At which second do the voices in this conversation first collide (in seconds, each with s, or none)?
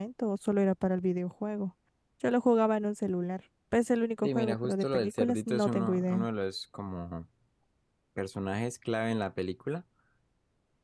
4.2 s